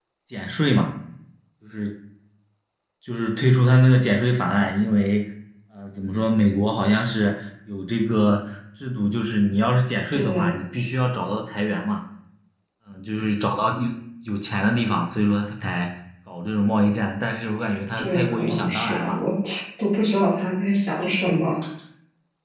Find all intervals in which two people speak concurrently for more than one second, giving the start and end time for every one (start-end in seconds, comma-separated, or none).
18.0-19.2